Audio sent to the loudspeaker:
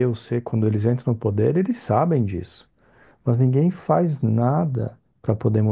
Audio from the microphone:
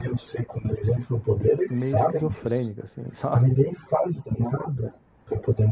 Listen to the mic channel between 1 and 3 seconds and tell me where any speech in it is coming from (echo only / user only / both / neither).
both